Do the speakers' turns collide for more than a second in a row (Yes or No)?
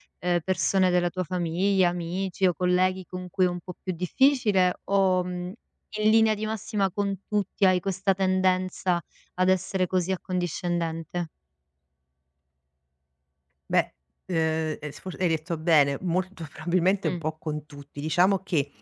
No